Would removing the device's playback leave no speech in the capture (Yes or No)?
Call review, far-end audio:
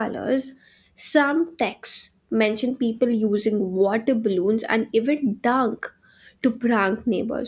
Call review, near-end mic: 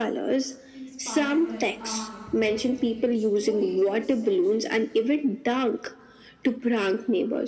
No